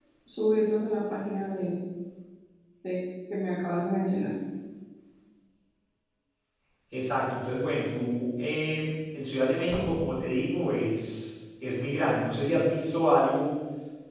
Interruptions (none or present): none